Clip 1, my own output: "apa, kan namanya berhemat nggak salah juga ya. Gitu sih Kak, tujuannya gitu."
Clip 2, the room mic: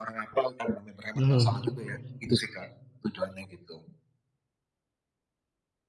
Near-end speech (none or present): present